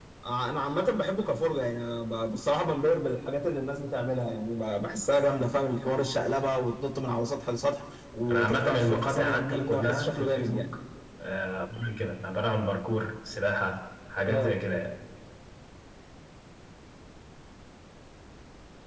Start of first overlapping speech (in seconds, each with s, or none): 8.3 s